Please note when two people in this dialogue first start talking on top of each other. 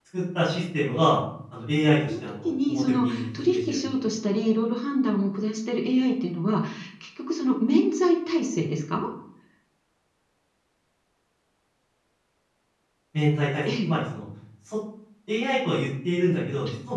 2.1 s

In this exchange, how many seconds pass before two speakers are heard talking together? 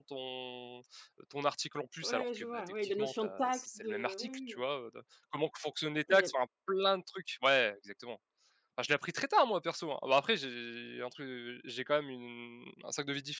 2.0 s

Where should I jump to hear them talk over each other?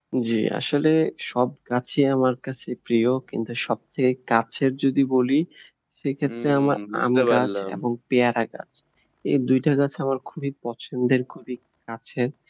6.2 s

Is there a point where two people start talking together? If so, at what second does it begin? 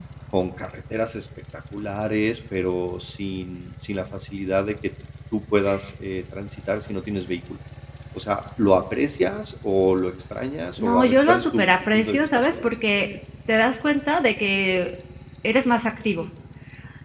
10.8 s

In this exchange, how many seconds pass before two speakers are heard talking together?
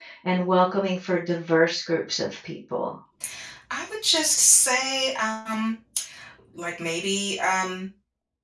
none

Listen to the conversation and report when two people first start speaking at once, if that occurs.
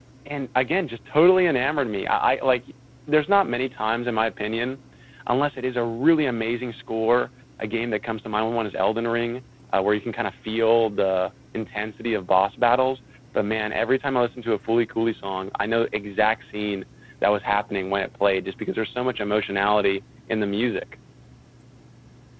none

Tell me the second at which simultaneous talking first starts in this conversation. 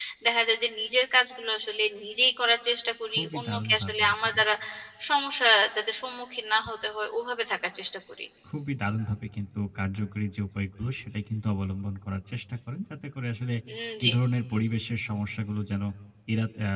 3.1 s

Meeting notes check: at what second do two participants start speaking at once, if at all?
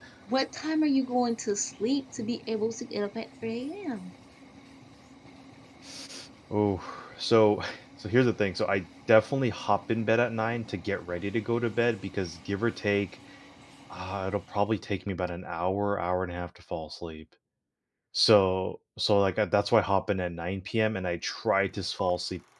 none

